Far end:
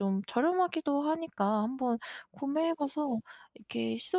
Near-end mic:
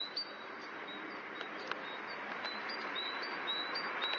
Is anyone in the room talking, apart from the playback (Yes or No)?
No